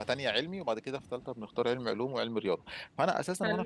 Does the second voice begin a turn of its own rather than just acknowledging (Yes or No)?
No